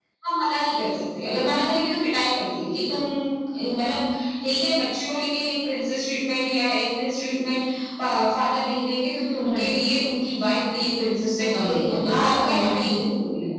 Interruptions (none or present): present